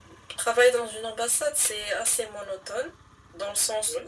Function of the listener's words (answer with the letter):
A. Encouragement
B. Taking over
A